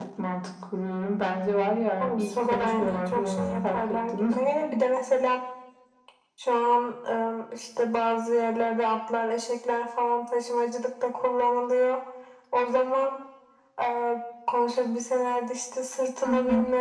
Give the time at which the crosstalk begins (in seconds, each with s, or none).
2.0 s